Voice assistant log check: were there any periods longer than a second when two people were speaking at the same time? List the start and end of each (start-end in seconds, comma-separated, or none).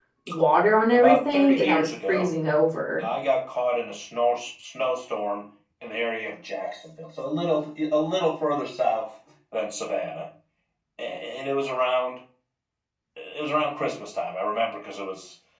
0.9-2.3